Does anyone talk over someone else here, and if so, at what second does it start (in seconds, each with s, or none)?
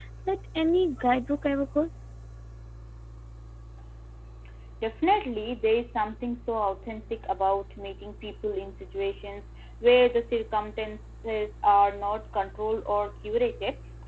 none